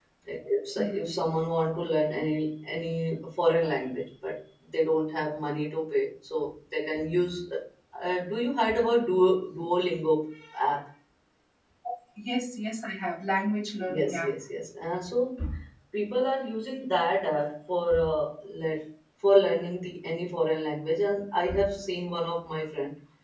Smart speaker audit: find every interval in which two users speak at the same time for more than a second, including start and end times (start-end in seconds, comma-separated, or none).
none